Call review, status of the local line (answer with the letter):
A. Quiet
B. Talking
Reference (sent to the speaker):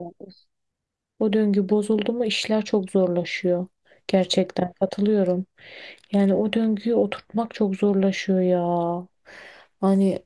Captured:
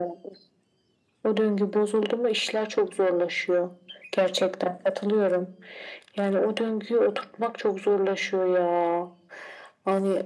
A